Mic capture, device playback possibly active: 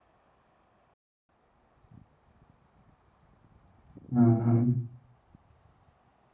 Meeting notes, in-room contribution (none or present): present